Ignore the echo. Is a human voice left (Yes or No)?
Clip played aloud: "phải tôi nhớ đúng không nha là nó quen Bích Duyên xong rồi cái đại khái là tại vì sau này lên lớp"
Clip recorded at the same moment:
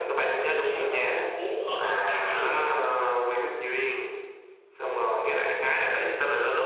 Yes